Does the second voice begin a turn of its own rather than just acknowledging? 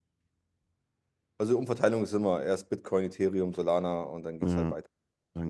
Yes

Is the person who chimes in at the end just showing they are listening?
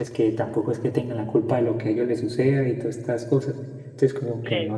No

